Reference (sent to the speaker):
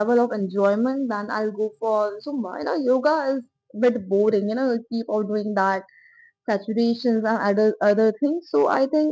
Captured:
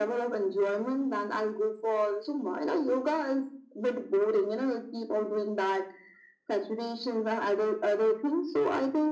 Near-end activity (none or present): none